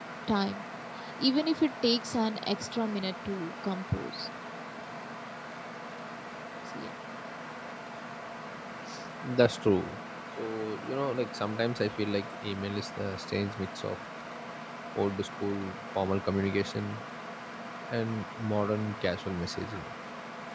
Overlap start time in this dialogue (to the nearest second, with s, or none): none